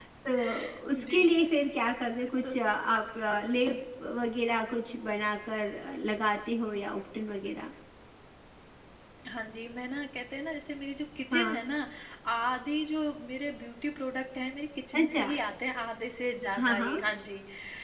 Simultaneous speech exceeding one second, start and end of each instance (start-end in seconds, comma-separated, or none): none